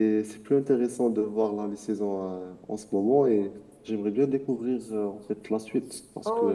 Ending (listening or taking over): taking over